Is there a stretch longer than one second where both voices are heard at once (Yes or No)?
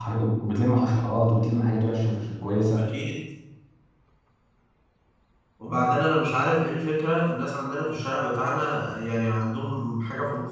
No